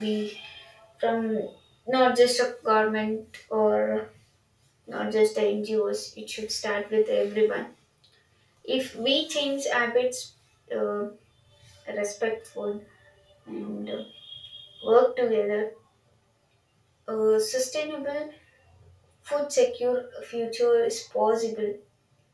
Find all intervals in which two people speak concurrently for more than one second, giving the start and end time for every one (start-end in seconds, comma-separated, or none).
none